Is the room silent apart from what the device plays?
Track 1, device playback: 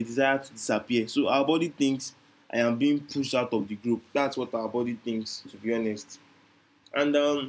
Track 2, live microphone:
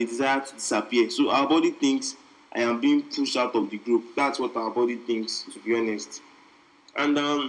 Yes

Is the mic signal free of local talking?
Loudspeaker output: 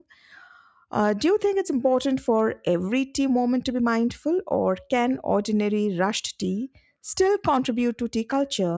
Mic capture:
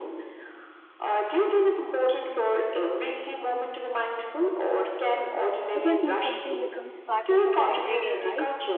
No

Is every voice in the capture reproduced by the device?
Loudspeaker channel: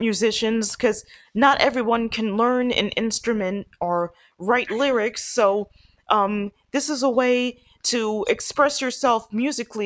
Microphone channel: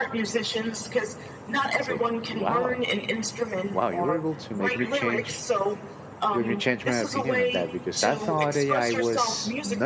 No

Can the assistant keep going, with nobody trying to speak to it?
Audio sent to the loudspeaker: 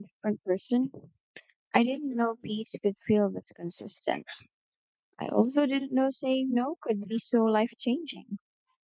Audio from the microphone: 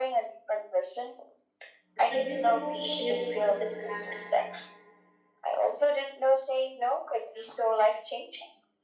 No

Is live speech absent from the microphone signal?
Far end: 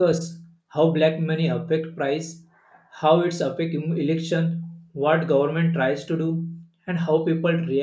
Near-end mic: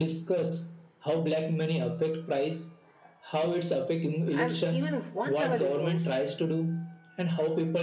No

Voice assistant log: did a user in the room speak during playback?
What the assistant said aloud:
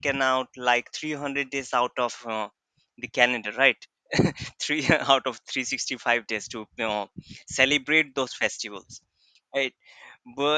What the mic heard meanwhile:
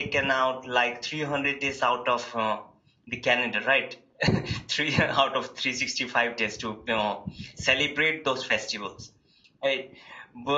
No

